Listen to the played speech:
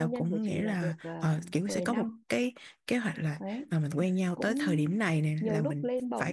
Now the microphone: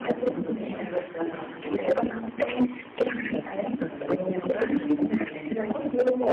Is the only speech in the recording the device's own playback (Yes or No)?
Yes